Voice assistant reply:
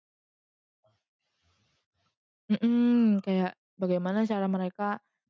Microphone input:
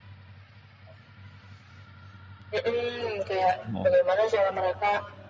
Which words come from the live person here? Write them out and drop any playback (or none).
Oh, heeh.